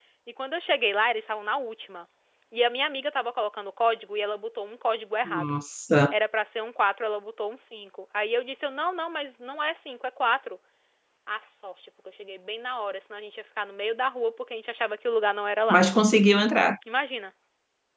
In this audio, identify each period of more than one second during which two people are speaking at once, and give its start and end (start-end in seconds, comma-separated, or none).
none